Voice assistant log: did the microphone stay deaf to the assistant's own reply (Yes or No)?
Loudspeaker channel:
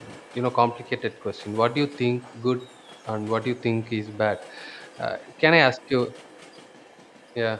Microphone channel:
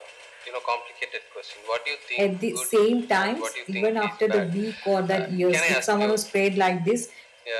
No